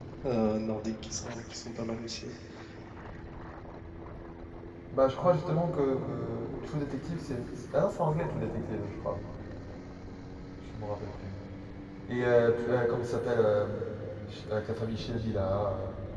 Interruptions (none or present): none